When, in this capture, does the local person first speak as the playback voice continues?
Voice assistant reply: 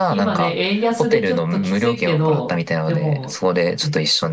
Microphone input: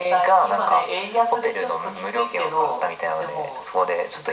none

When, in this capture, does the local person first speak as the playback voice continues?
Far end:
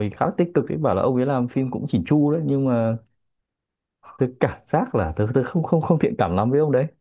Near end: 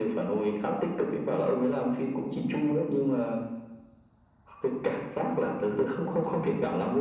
none

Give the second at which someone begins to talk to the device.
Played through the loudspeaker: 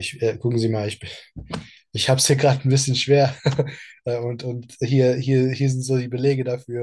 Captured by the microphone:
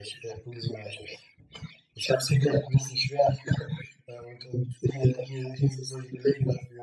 none

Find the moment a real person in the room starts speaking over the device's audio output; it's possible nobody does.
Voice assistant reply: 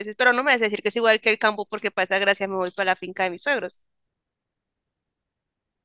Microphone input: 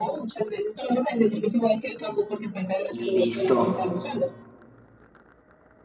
2.9 s

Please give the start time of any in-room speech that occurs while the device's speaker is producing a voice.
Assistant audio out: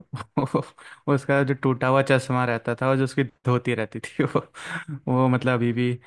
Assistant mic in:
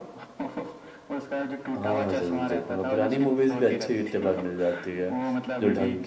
1.8 s

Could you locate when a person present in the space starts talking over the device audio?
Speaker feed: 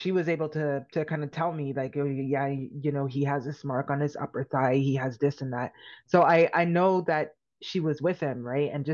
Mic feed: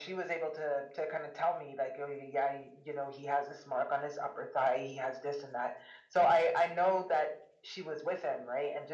none

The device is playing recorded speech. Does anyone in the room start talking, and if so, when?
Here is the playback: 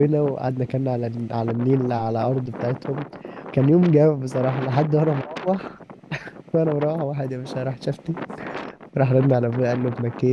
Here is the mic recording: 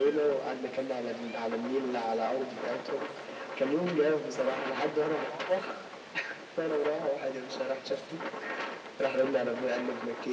none

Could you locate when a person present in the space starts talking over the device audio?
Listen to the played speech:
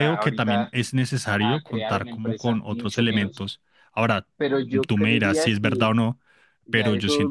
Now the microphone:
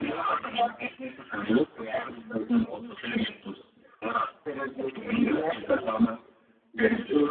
none

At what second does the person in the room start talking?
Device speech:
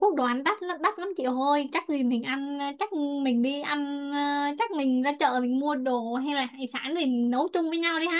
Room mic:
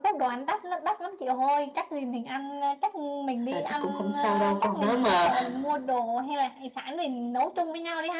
3.5 s

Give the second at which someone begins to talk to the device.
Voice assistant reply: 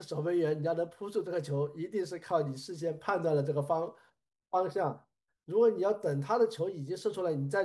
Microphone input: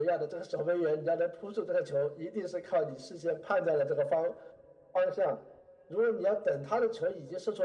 none

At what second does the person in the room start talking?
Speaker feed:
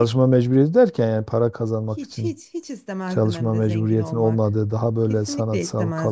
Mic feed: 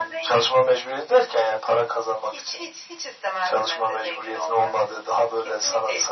none

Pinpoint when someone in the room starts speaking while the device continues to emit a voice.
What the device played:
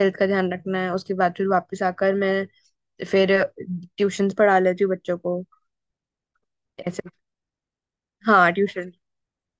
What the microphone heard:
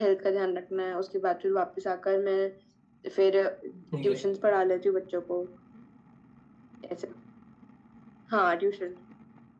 3.9 s

